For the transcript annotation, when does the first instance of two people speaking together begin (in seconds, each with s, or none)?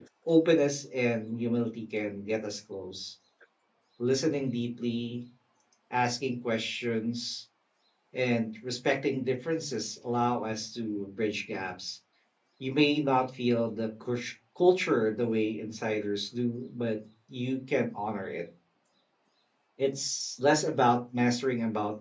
none